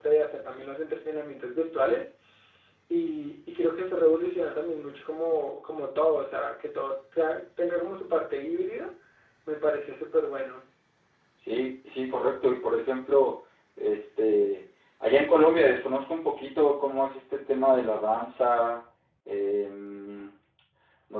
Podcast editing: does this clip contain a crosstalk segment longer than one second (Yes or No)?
No